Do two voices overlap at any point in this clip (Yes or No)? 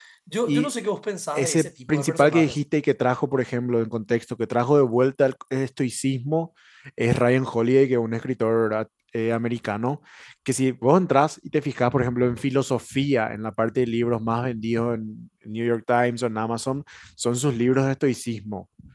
Yes